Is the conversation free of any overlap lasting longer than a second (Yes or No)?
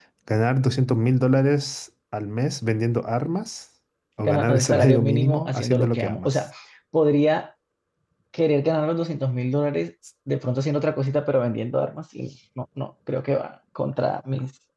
No